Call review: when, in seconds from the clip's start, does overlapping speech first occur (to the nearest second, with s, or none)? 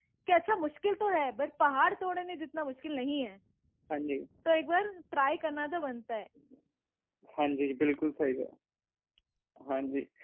none